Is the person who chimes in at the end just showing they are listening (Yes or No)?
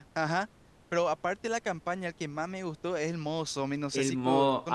No